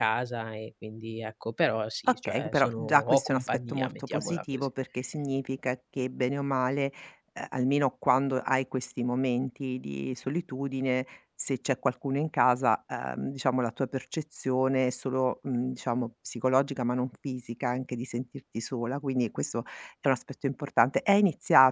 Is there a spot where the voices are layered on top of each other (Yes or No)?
Yes